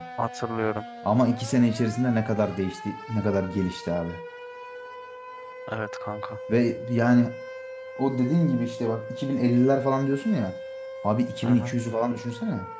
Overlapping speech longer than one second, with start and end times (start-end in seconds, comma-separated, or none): none